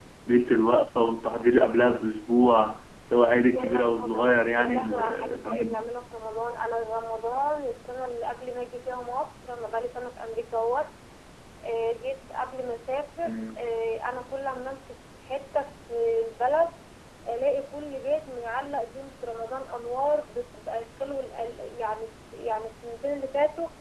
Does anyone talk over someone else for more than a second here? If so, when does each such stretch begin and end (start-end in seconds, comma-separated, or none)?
3.5-5.7